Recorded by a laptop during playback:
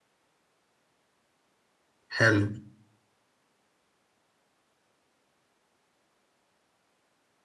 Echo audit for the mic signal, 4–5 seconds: neither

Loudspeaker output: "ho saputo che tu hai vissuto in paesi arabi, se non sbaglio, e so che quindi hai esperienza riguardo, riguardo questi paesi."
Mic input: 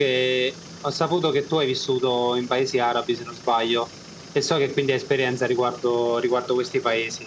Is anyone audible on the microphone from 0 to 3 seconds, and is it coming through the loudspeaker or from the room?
echo only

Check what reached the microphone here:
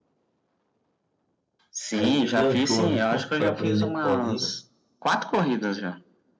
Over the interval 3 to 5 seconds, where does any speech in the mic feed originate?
both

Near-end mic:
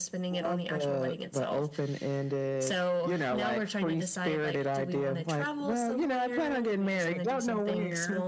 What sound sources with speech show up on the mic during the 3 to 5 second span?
echo only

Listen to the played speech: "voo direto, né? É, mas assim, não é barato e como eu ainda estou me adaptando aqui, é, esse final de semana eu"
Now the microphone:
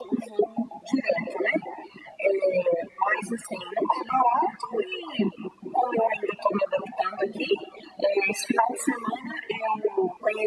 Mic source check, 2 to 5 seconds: echo only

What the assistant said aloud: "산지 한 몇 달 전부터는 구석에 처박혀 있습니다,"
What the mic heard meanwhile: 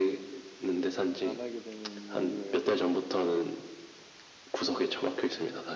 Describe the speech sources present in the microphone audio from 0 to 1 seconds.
echo only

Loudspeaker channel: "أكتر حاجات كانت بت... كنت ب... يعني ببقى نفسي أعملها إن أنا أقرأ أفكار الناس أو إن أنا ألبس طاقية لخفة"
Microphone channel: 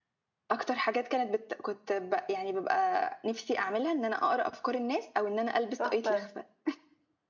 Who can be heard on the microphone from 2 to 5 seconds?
echo only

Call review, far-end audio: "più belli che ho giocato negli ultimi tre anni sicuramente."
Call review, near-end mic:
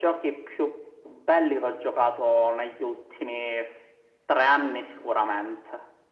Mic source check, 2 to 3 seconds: echo only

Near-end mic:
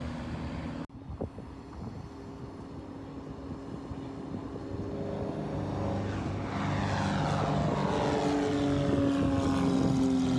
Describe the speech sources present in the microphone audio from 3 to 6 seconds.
neither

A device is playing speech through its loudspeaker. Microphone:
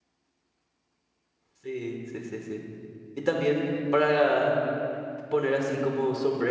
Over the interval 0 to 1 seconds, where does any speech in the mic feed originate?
neither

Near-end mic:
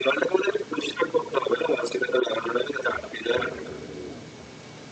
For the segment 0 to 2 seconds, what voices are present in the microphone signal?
echo only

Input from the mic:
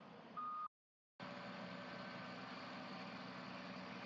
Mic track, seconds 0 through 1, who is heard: neither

